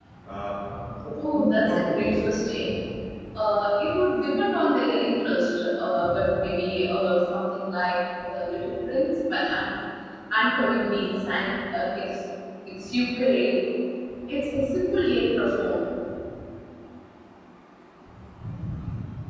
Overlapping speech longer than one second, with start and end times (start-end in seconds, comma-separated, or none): 1.2-2.5